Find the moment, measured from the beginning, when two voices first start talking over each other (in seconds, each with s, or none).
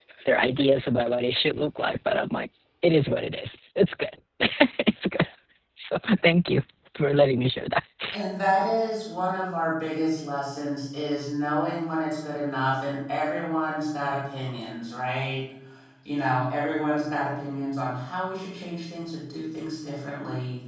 none